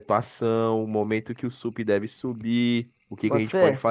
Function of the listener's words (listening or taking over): listening